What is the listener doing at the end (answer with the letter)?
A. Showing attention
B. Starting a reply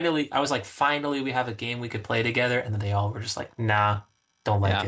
B